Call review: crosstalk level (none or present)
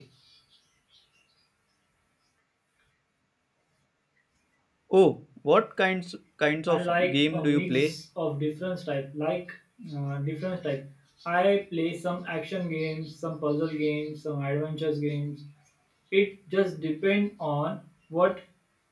present